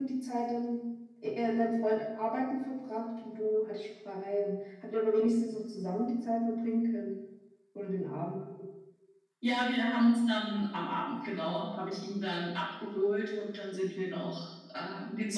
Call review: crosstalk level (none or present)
none